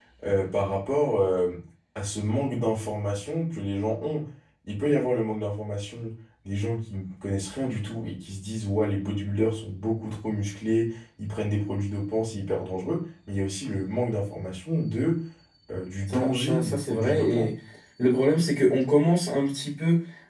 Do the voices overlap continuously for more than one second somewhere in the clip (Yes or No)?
Yes